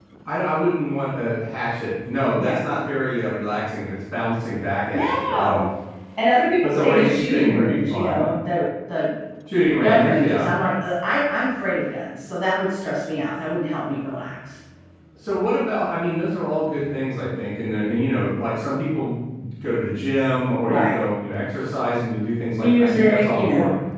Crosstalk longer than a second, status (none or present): present